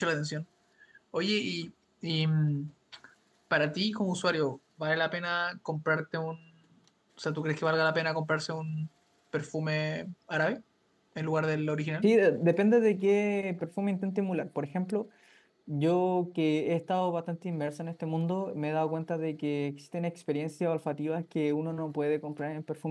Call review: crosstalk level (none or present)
none